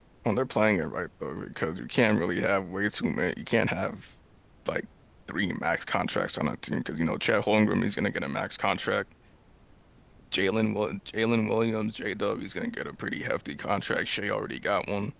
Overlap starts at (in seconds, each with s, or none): none